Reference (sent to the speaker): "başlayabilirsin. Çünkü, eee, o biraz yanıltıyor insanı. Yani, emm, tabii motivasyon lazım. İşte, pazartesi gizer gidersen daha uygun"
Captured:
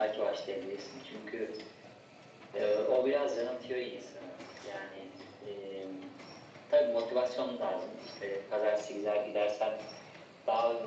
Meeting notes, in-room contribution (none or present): none